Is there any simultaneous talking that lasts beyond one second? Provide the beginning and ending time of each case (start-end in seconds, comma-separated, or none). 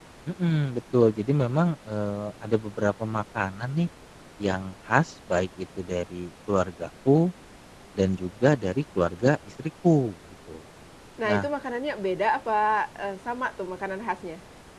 none